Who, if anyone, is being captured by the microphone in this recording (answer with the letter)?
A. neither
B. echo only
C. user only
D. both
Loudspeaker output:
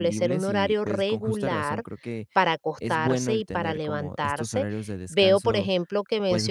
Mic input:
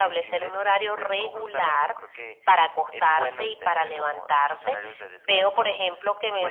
B